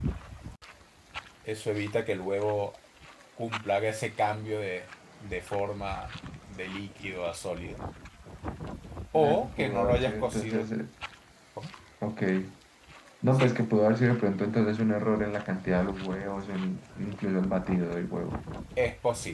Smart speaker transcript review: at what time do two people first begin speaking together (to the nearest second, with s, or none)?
9 s